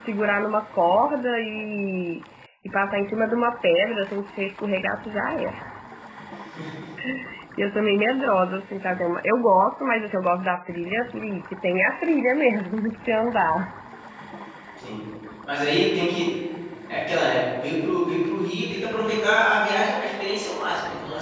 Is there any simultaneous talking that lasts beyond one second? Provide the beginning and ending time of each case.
none

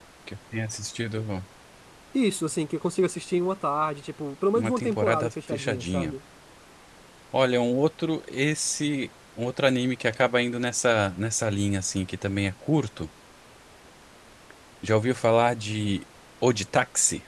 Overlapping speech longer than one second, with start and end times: 4.5-6.1

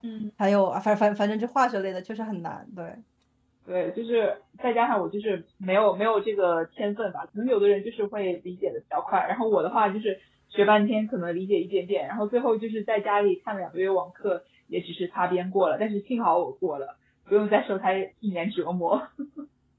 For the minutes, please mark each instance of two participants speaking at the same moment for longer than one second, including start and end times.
none

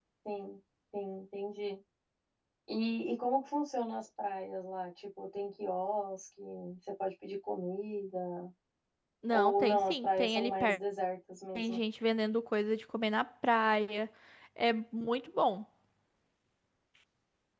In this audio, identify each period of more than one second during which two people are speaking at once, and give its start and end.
9.3-10.8

